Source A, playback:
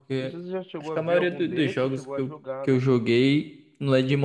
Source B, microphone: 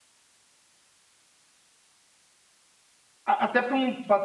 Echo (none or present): none